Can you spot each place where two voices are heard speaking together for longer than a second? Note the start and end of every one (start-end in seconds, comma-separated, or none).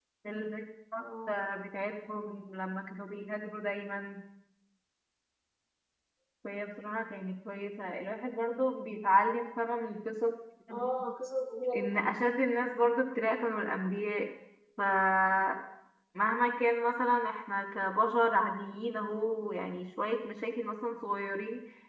none